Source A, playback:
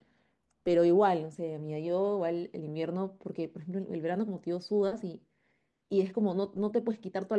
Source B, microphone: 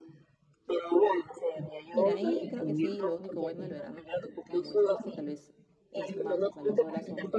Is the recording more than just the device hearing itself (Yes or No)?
Yes